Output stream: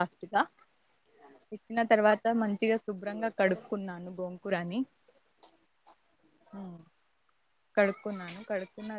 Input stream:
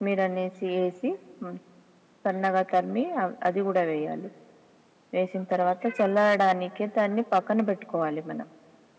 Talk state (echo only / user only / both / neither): user only